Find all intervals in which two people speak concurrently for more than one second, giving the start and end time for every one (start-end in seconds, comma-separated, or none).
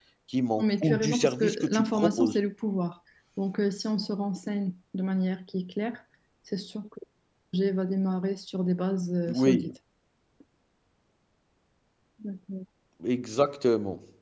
0.6-2.4